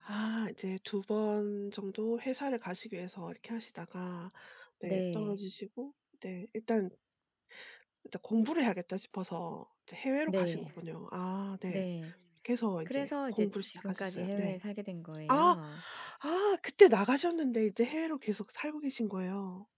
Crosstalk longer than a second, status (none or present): present